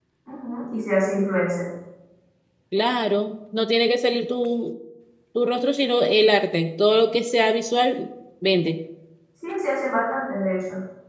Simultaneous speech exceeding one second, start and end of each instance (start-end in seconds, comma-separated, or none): none